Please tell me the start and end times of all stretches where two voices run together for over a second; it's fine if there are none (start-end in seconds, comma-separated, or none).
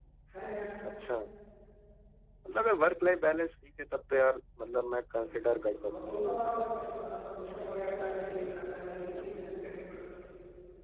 5.2-6.7